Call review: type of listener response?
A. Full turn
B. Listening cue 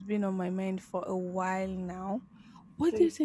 B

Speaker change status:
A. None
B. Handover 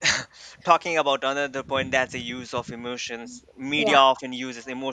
A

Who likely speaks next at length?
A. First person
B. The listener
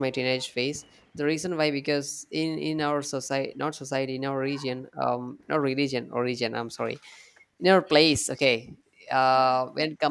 A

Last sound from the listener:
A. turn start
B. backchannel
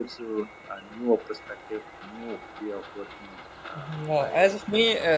A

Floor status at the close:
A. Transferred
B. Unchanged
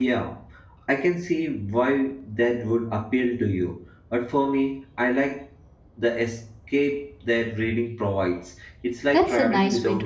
A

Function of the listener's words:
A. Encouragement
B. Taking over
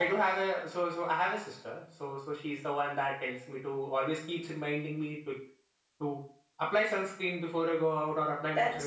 B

